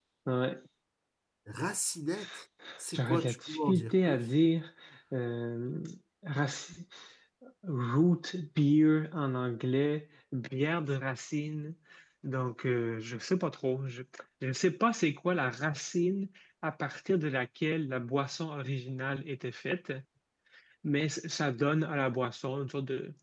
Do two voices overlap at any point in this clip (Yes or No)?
Yes